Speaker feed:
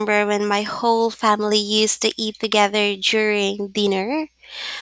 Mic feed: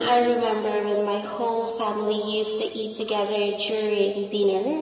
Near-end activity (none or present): none